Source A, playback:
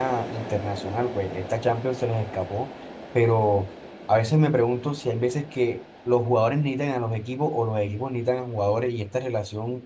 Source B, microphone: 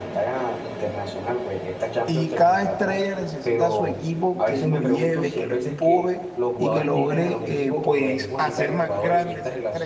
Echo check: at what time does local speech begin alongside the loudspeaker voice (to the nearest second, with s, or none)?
2 s